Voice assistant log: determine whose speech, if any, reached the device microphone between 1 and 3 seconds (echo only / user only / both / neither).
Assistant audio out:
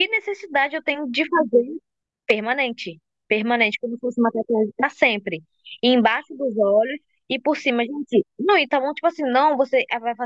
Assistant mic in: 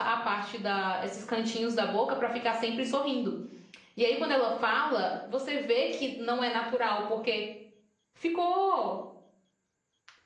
user only